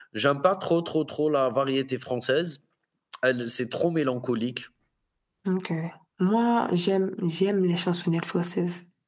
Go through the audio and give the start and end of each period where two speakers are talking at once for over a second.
none

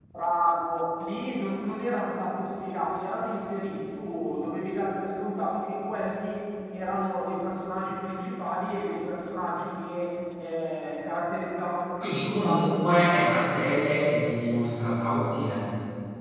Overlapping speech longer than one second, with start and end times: 12.0-13.6

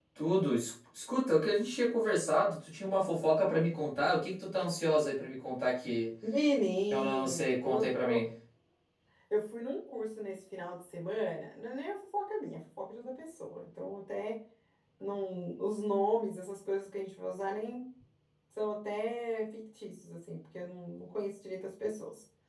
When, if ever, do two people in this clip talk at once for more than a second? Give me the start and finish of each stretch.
6.9-8.2

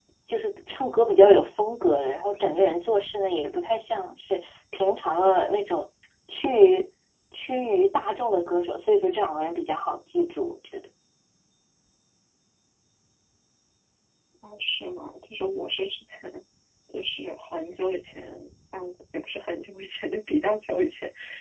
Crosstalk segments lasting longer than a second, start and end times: none

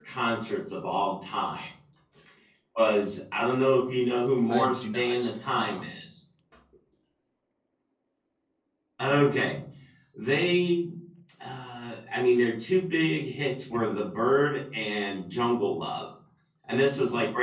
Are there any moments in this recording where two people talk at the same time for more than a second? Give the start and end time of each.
4.5-5.8

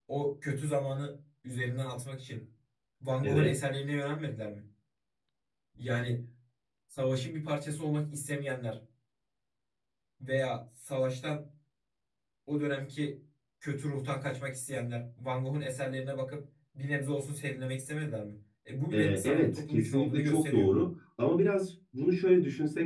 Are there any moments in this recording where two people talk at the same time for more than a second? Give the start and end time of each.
18.9-20.7

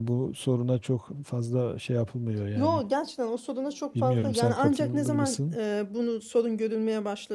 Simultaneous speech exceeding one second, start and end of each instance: 4.0-5.6

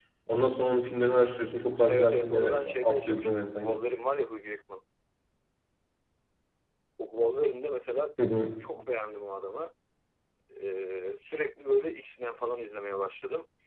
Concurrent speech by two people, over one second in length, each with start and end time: 1.9-3.8

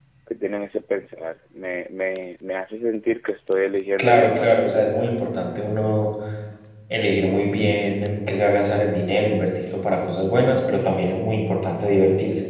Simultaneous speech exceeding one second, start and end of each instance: 4.0-5.2

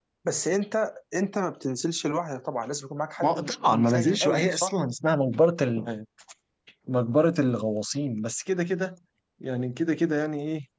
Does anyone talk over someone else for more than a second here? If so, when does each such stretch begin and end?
3.2-4.7

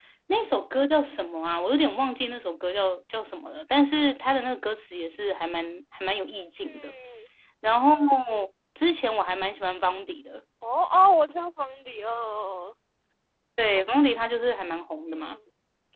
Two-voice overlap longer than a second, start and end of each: none

